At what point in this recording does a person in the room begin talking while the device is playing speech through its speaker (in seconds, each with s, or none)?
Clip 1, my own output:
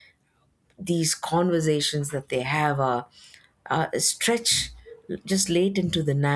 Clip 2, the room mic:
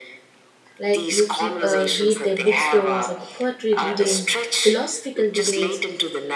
0.8 s